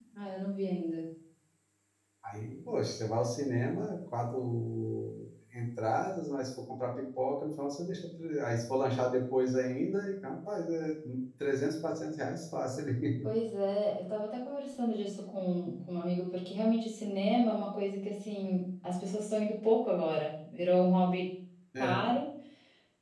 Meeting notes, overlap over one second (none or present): none